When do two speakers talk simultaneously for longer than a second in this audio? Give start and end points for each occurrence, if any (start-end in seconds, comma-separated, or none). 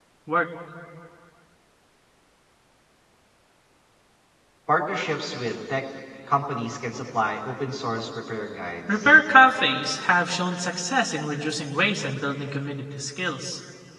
none